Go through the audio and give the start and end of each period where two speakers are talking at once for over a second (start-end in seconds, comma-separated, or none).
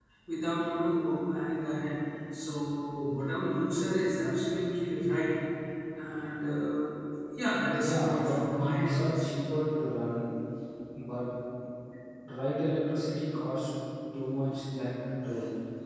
7.8-9.2